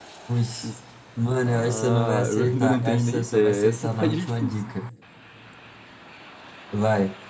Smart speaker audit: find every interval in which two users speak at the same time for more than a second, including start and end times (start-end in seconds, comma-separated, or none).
1.4-4.5